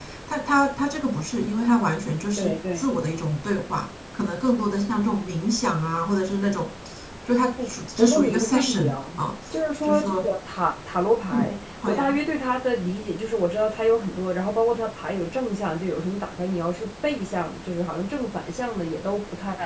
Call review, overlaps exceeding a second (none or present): present